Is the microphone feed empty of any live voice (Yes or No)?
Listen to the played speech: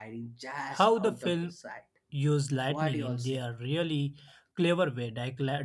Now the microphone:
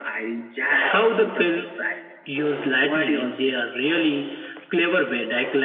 Yes